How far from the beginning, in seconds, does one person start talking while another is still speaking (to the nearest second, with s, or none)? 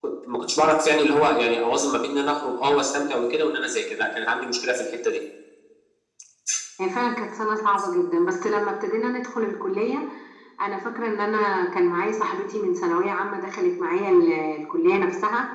none